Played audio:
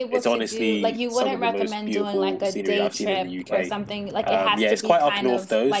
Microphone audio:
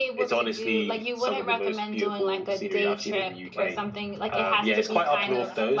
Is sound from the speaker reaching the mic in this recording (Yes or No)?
Yes